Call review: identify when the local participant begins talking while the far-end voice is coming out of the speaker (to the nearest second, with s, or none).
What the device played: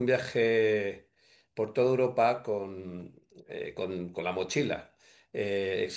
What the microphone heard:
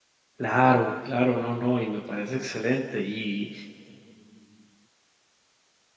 0 s